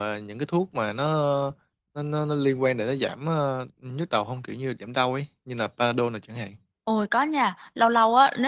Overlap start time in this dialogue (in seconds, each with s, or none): none